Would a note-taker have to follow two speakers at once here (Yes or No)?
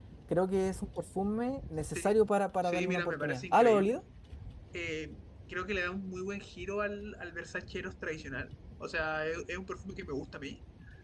Yes